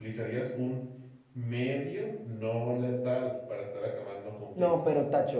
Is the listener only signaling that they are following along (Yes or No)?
No